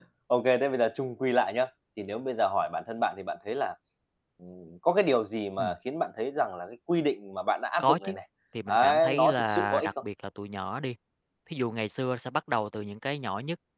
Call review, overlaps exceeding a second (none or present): present